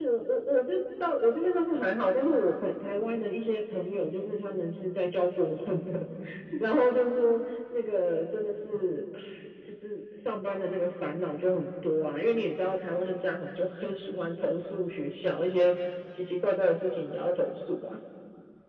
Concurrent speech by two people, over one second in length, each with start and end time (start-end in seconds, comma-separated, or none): none